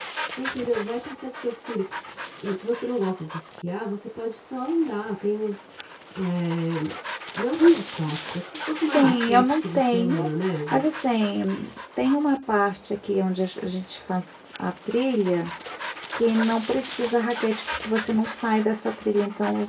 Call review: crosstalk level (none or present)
present